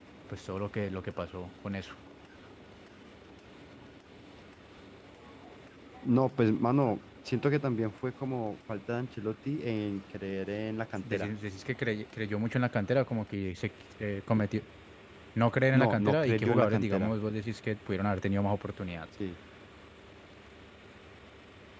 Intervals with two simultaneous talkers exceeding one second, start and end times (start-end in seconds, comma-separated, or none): 15.7-17.1